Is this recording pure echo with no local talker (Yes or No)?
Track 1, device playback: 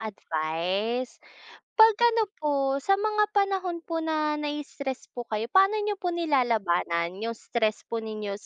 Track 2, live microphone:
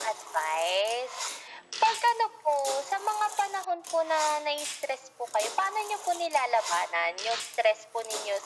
Yes